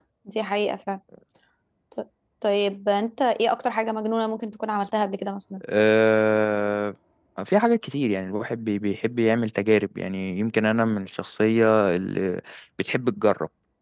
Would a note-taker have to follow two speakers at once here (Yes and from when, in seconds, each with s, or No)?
No